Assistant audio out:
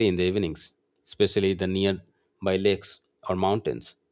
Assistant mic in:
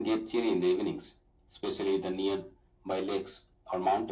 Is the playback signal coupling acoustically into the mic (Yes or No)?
Yes